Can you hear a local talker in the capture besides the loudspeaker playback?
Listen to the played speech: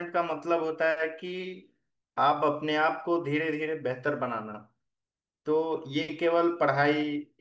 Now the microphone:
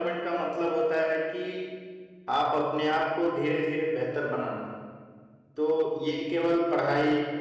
No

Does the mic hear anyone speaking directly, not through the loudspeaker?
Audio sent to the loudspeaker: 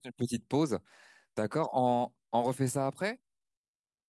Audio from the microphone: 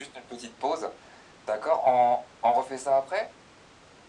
No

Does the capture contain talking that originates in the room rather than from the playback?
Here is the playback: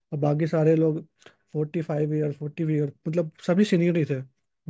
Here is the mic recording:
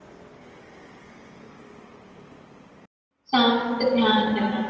Yes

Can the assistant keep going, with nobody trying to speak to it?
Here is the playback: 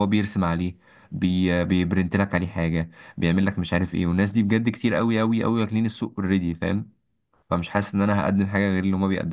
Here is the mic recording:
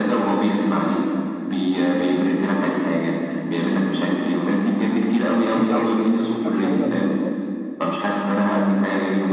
No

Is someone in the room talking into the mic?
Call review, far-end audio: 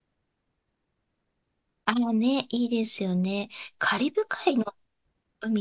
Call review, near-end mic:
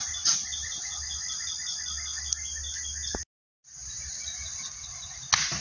No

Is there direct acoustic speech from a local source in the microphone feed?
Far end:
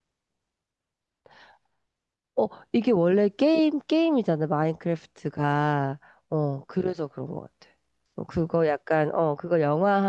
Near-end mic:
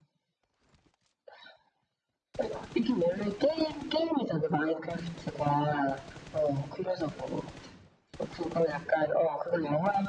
No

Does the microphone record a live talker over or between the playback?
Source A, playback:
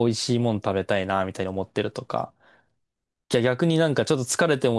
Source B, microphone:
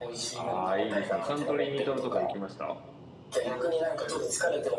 Yes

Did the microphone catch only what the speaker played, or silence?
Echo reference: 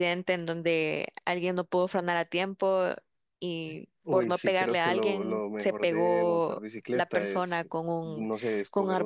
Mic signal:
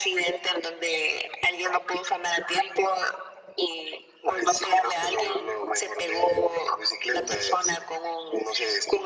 Yes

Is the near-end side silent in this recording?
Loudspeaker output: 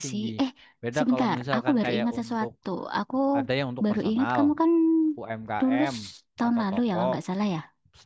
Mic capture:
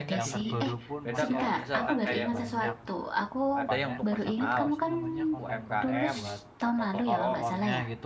No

